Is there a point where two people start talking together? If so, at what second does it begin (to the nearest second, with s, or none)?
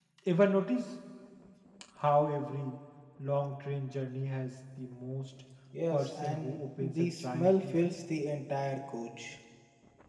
6 s